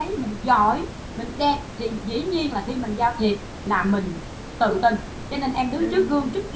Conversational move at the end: listening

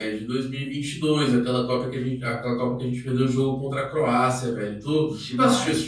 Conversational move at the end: taking over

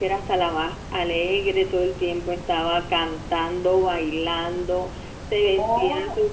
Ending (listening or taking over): listening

